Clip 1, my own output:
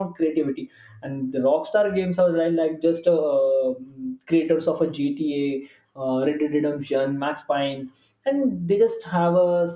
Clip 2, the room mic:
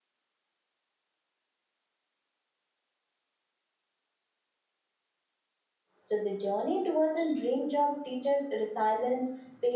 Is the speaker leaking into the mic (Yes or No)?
No